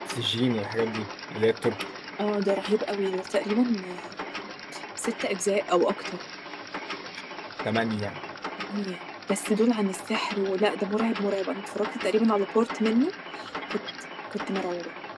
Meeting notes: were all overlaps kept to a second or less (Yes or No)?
Yes